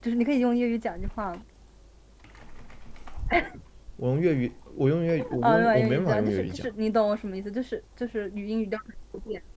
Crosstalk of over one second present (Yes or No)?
Yes